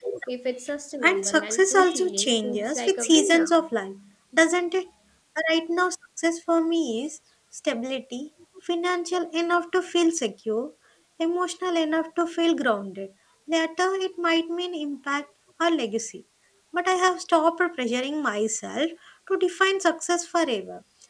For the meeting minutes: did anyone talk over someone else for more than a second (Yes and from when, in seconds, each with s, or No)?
Yes, from 1.0 s